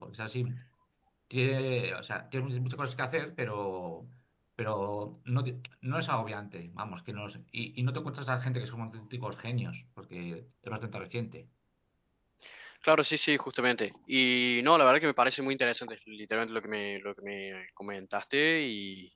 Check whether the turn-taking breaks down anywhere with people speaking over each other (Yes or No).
No